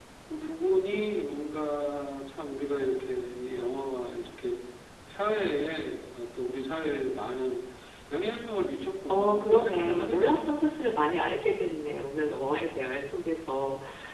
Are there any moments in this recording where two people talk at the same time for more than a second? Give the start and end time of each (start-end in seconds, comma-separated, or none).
9.1-10.6